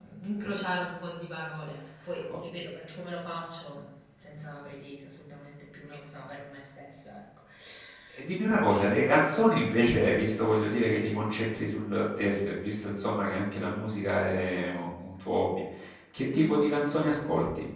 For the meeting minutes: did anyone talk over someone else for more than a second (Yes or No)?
No